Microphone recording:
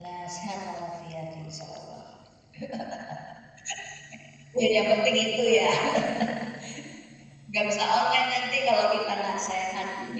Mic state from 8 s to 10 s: user only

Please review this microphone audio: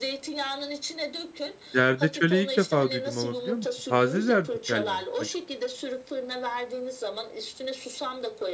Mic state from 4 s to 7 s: both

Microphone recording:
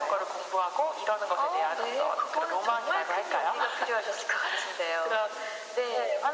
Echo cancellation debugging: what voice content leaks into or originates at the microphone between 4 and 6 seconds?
echo only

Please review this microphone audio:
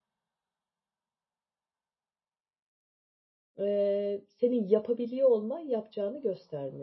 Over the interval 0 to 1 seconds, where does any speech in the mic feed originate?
neither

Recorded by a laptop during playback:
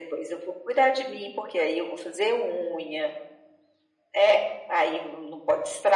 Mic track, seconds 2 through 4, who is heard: echo only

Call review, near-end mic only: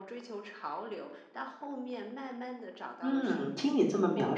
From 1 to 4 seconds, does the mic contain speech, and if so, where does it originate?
both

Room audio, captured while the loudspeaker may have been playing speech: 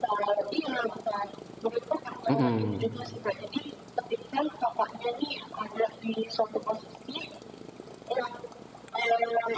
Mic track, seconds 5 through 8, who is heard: echo only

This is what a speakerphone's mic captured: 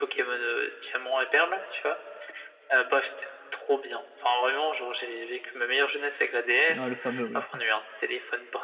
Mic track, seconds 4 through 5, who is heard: echo only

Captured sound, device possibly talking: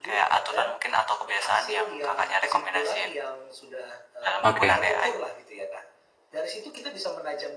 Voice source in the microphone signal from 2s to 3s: echo only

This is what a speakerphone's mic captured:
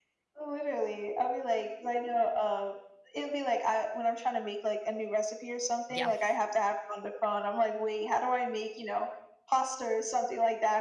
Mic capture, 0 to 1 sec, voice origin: echo only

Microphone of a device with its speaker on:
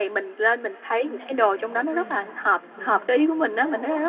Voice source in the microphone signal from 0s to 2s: both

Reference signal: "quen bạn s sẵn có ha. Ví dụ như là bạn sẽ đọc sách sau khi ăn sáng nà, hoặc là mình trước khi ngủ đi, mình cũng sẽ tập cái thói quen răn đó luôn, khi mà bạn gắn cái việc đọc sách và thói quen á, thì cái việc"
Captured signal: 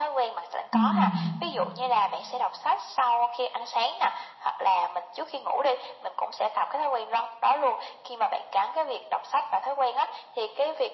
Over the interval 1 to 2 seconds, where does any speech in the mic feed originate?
both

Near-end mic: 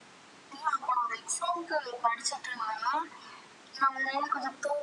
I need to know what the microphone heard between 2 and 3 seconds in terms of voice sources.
echo only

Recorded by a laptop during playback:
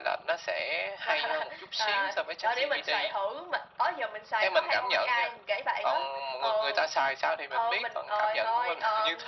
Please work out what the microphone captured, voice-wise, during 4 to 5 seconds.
echo only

